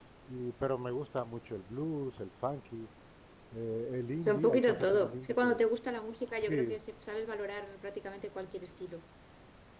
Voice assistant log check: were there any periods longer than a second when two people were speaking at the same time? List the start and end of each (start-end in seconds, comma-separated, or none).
4.2-5.6